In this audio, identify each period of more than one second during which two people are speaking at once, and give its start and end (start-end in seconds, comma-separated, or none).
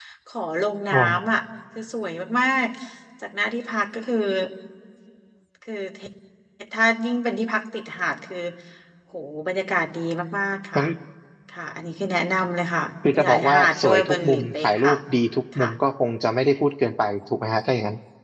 13.1-14.9